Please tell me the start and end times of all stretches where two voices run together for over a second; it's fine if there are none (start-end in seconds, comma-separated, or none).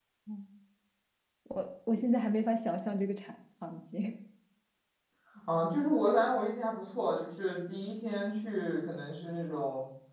none